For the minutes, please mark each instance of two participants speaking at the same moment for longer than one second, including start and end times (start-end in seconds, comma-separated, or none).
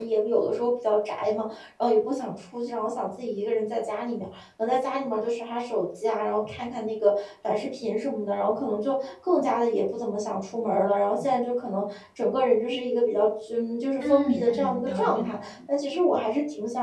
14.0-15.5